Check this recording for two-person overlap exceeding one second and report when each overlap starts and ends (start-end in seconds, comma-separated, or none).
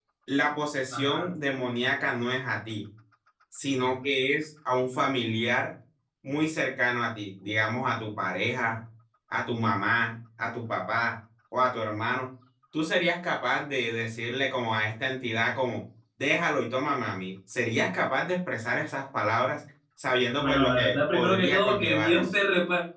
20.4-22.3